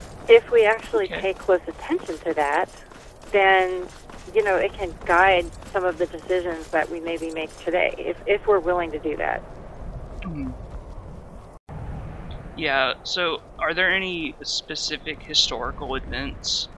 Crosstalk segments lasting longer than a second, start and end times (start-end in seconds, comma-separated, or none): none